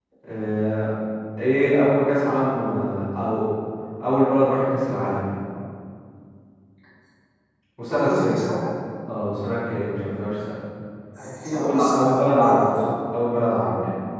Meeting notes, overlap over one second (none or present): present